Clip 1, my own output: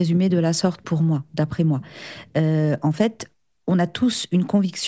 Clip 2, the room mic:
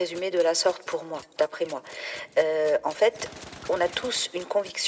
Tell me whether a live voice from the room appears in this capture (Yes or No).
No